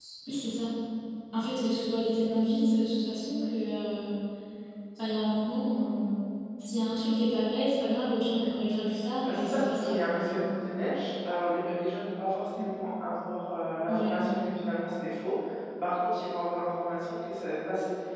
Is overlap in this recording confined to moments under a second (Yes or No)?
No